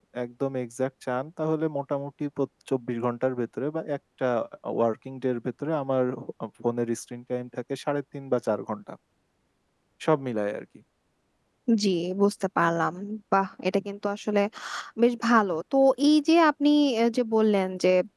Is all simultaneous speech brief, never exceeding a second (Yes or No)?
Yes